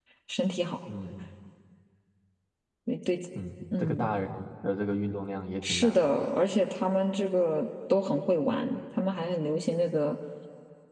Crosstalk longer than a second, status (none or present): none